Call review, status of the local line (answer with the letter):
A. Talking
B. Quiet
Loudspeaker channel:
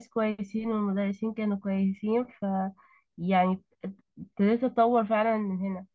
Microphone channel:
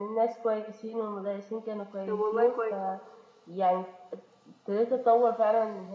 A